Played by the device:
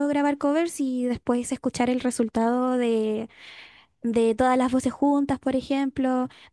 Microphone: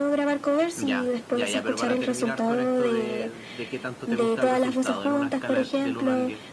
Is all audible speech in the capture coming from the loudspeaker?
No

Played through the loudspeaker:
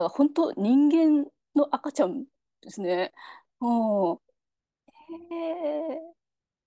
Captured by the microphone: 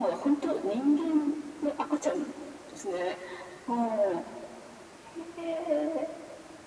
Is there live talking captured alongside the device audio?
No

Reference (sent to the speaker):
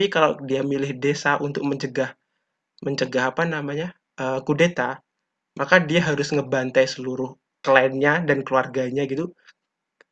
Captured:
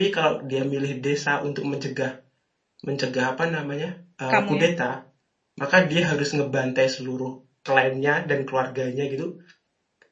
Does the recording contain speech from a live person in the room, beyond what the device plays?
Yes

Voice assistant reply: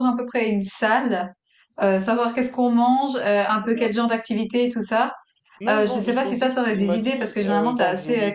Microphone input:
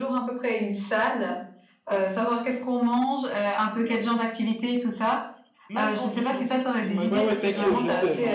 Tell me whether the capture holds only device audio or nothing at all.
No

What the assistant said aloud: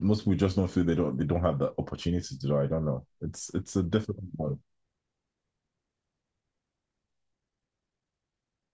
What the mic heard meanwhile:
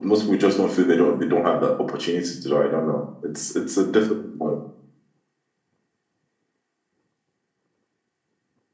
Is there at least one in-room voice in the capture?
No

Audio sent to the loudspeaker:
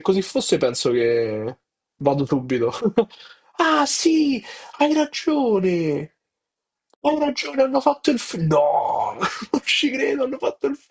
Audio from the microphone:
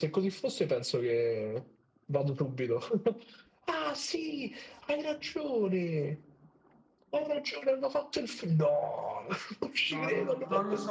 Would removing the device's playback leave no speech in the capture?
No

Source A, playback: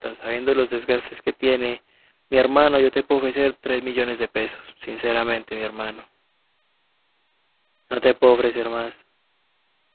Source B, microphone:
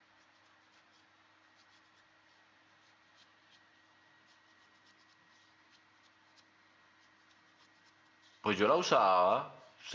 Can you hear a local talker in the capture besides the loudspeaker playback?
Yes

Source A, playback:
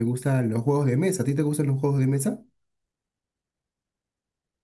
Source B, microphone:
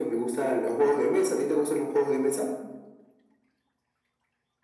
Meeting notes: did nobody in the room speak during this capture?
Yes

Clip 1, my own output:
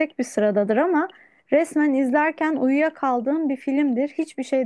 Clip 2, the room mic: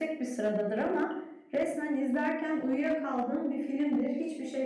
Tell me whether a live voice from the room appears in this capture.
No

